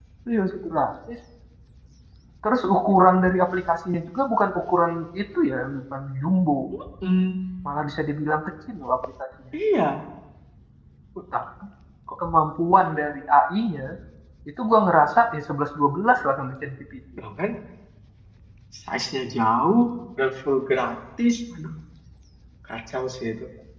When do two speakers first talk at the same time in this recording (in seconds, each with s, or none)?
none